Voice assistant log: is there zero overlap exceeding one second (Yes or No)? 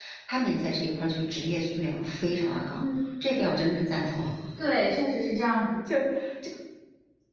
Yes